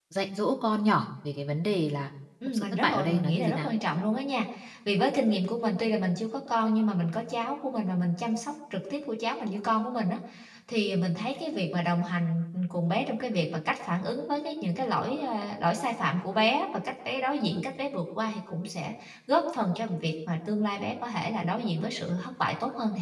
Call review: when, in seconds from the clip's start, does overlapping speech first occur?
2.4 s

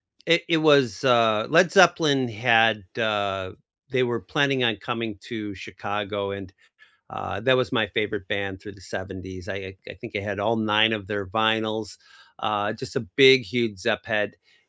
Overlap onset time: none

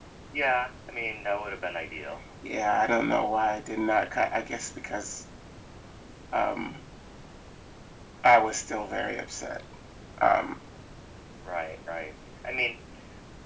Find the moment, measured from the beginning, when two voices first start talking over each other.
none

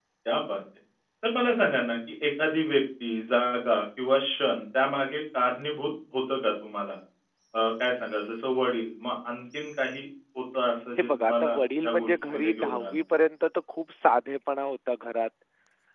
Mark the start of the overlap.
11.0 s

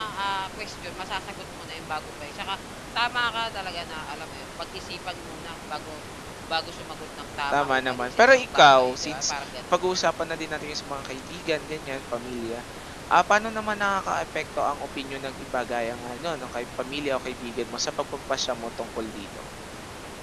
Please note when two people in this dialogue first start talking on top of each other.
7.5 s

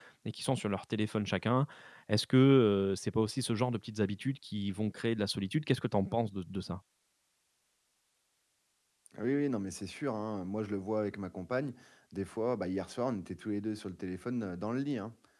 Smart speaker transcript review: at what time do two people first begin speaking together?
none

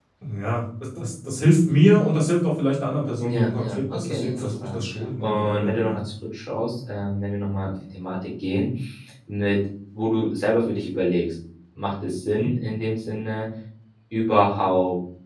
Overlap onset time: 3.2 s

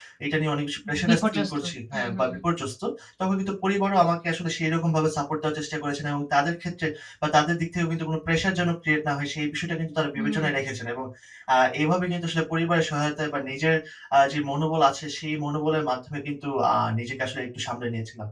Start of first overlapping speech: 1.0 s

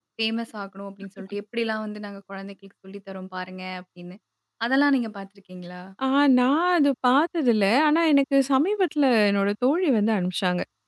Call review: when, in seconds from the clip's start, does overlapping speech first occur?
none

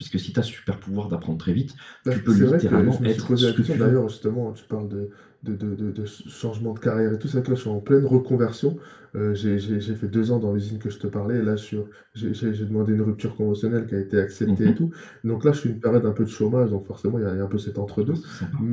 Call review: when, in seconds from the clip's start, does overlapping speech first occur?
2.1 s

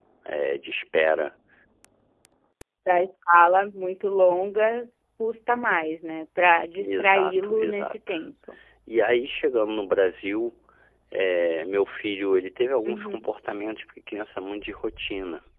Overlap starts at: 6.8 s

